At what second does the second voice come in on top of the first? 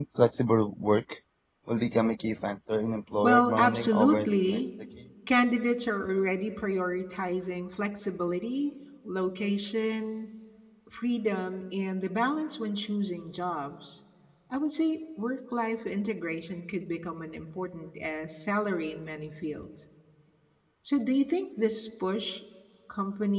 3.2 s

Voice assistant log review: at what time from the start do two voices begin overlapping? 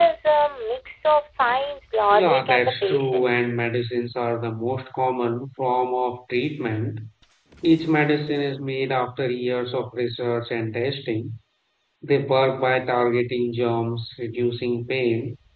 2.1 s

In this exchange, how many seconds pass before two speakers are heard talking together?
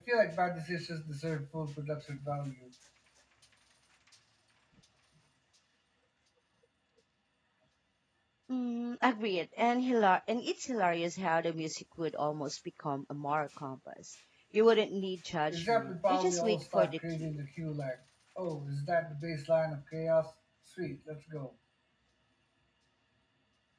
15.5 s

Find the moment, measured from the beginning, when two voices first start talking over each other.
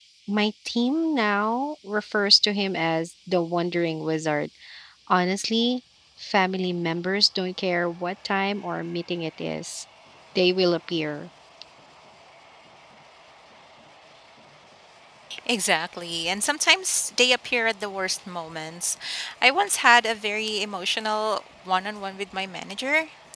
none

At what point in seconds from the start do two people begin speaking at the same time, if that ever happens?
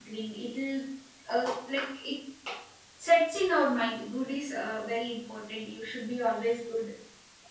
none

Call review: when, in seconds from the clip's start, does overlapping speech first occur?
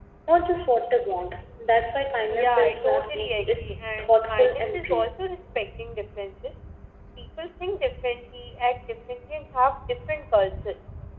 2.3 s

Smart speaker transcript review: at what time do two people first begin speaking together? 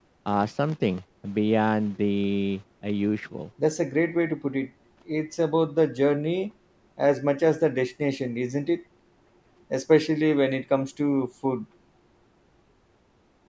none

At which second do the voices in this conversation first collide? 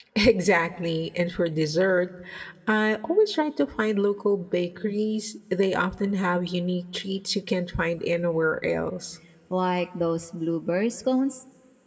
none

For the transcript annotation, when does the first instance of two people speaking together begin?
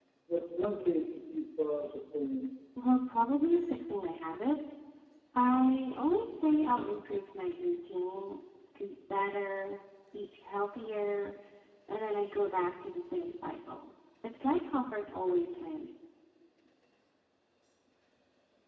none

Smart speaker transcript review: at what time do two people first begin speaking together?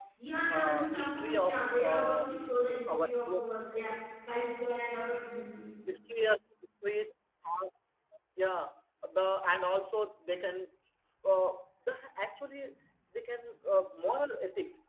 0.5 s

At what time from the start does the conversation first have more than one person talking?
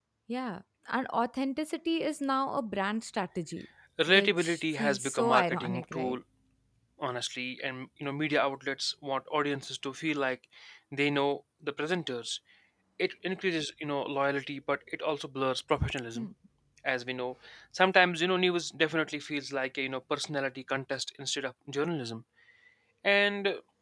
4.0 s

